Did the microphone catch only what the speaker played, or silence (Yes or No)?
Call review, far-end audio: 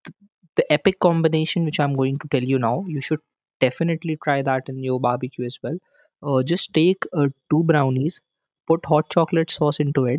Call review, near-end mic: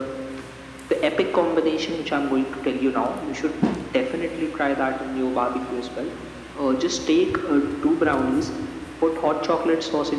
Yes